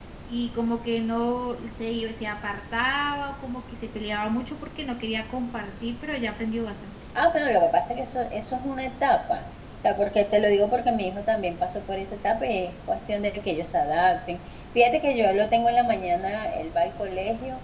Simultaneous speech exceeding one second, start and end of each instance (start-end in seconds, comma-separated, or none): none